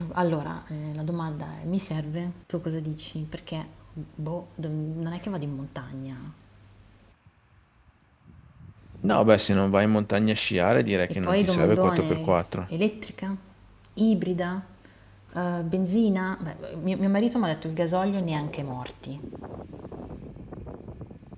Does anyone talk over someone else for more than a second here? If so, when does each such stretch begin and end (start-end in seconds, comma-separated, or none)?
11.2-12.4